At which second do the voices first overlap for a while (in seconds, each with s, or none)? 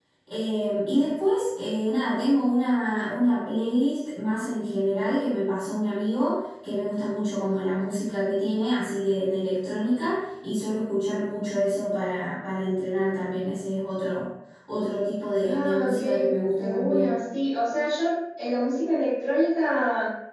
15.4 s